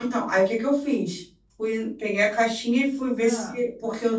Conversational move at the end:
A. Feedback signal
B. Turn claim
A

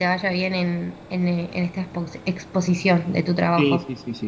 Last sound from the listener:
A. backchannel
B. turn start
B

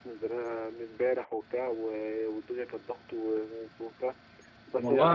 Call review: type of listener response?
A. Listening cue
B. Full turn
A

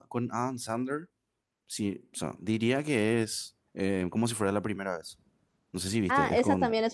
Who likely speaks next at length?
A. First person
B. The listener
B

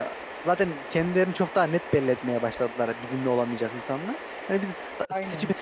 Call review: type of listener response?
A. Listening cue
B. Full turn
A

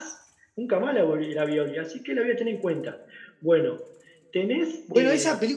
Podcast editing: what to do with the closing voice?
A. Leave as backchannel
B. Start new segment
B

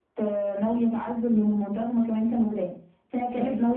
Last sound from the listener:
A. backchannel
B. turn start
A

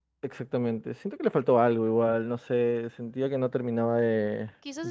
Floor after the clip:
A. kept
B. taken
B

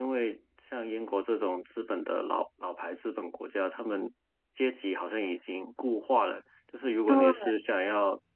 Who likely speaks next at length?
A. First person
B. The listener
A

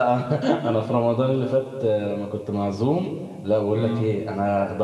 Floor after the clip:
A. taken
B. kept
B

